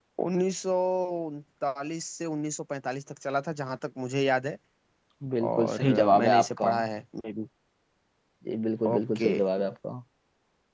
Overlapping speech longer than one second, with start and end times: 5.5-6.7

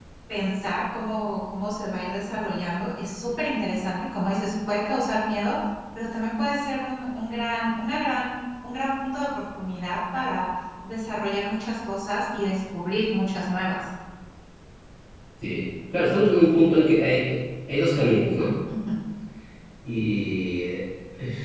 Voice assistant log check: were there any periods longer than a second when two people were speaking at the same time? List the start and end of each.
none

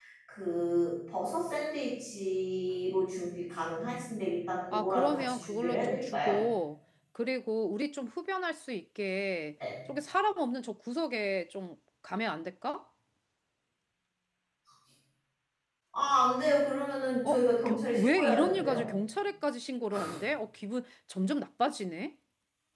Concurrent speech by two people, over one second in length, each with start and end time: 4.7-6.4, 17.2-18.9

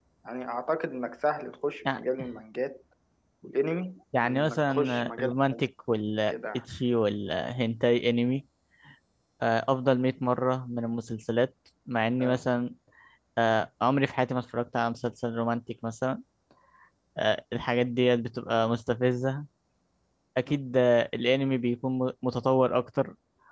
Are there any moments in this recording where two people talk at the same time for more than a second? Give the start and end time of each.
4.2-5.6

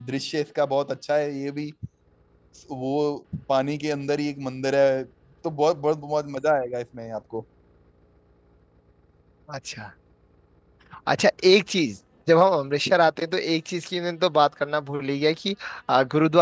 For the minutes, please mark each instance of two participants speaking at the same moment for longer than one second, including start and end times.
none

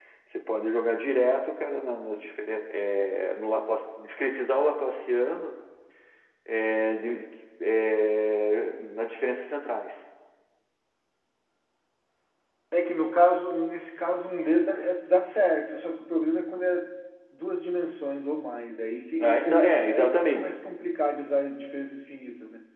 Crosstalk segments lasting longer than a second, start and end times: 19.2-20.5

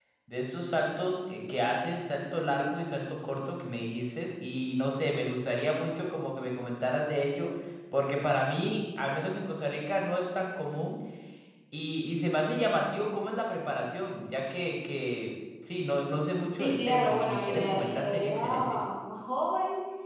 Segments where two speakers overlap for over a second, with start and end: 16.5-18.8

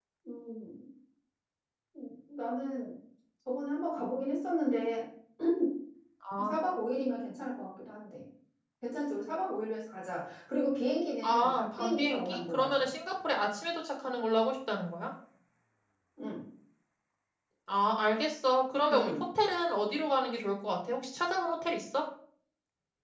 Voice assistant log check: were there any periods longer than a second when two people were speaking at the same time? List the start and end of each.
11.2-12.9

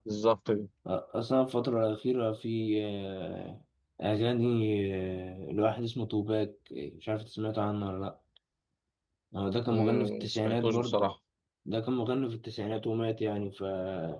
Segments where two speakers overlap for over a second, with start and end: 9.7-11.0

